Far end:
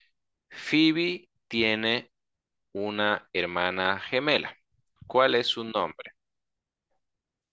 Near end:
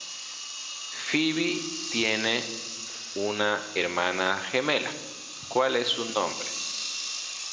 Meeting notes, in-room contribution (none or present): none